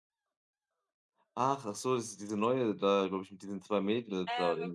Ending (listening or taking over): taking over